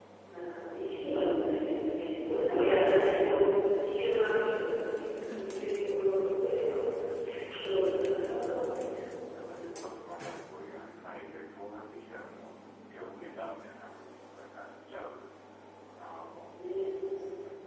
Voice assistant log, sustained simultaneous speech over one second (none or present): present